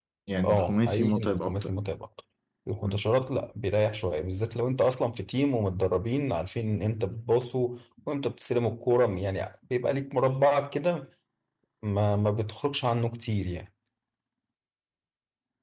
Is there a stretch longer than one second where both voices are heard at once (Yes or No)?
Yes